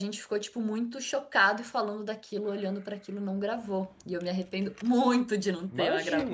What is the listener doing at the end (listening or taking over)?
taking over